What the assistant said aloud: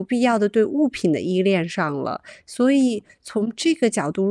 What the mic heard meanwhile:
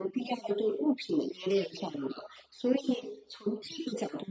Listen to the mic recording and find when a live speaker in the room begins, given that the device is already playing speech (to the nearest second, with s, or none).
none